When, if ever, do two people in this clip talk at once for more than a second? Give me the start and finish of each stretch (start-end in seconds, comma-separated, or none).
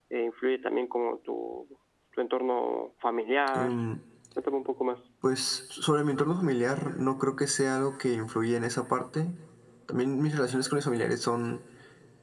none